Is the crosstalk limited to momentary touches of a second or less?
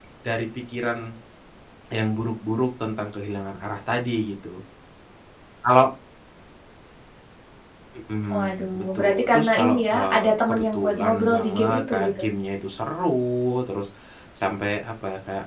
No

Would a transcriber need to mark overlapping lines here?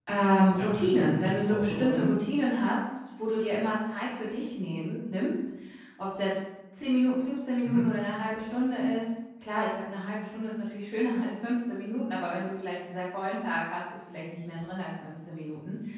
Yes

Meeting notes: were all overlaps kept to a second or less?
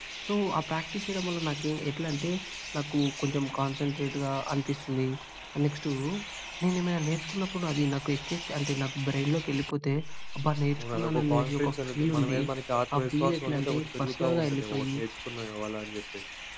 No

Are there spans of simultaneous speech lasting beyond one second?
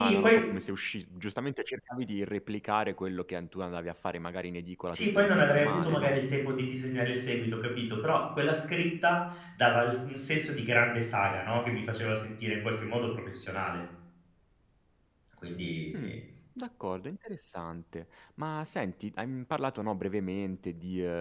Yes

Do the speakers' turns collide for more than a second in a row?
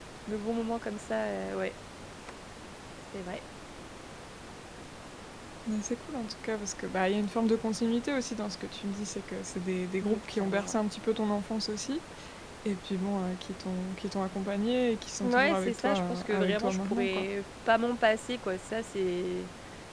Yes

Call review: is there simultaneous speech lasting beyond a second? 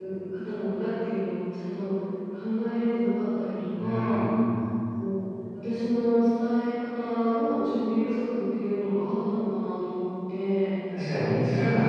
No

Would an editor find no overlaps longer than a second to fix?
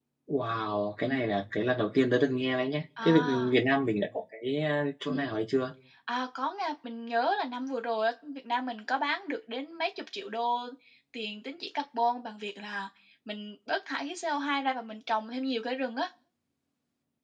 Yes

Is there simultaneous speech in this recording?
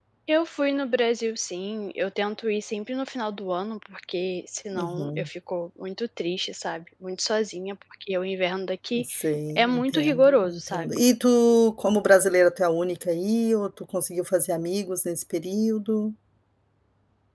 Yes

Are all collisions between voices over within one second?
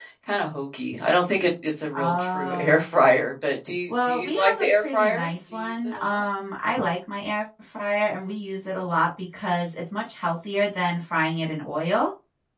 No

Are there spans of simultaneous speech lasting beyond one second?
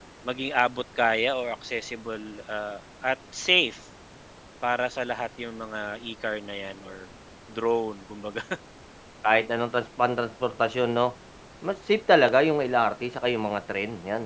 No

